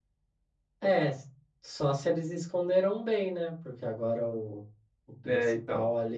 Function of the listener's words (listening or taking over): listening